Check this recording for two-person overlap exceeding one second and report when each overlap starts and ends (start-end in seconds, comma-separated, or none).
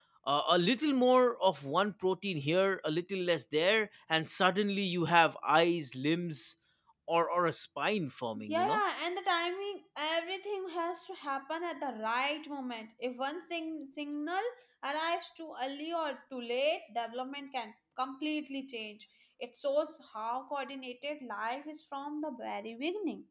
none